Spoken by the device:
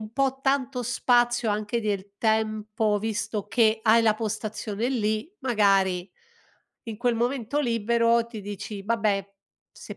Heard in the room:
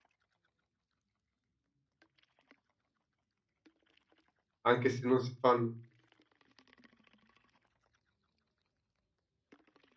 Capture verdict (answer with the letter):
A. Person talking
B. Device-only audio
A